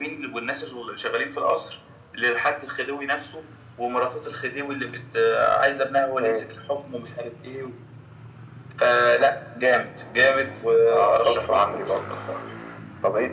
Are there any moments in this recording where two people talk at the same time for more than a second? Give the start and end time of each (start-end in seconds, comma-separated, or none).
10.7-12.0